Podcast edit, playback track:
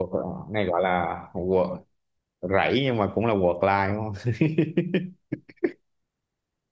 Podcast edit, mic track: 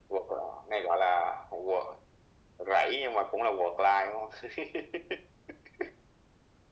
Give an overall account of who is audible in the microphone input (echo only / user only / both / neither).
echo only